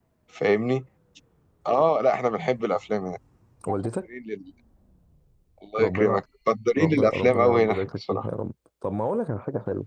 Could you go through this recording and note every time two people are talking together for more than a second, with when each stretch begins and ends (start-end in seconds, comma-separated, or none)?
6.8-8.3